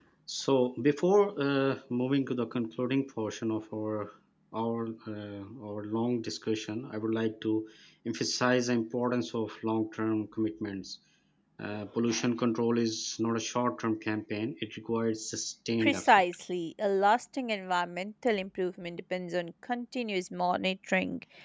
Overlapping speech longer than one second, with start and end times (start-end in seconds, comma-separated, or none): none